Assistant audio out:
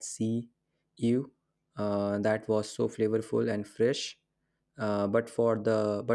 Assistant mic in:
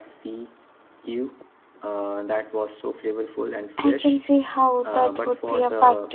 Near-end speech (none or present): present